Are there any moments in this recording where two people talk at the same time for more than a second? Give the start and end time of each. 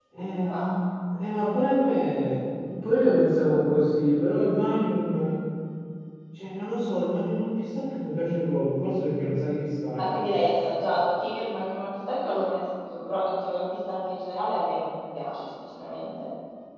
none

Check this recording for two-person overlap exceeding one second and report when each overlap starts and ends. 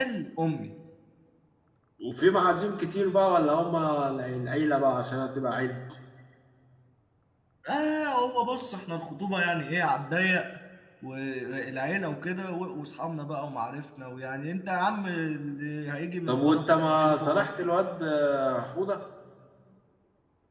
16.3-17.5

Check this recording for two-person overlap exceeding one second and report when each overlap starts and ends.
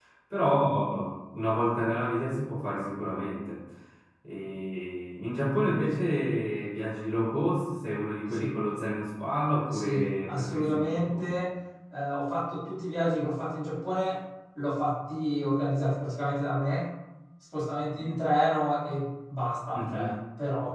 9.7-11.2

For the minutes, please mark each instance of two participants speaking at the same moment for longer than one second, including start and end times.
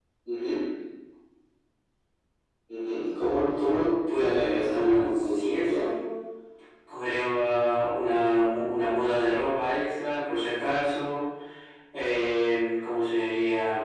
4.2-5.9

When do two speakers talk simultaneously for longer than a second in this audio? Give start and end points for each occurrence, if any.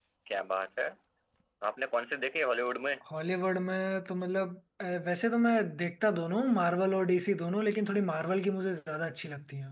none

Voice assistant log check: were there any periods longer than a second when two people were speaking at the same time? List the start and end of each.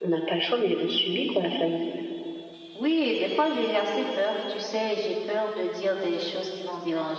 none

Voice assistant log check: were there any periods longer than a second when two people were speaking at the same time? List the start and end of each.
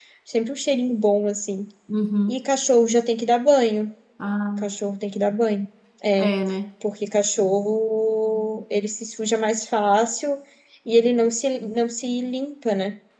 none

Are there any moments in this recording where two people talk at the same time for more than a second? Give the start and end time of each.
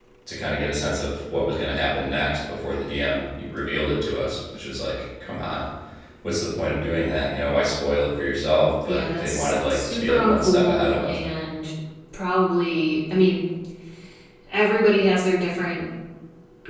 8.8-11.2

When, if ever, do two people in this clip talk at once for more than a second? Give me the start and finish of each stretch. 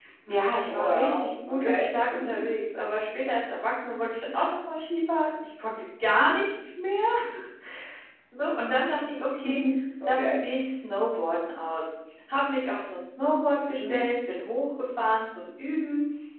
0.7-1.9

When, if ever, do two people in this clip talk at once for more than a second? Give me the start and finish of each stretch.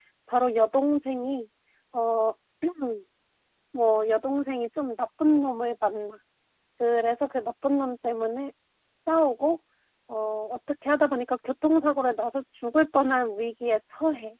none

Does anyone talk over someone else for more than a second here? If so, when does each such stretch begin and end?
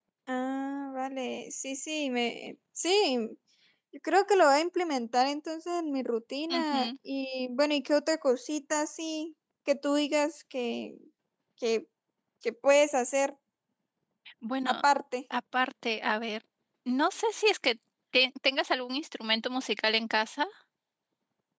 none

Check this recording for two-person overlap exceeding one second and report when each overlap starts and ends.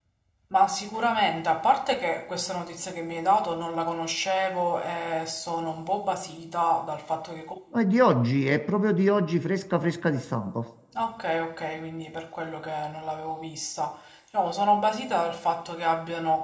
none

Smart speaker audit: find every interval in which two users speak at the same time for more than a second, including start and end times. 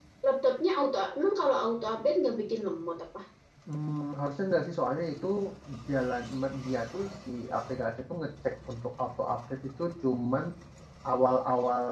none

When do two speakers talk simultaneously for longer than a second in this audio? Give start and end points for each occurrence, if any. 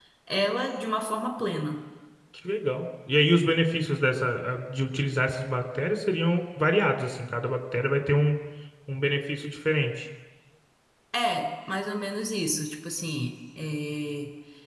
none

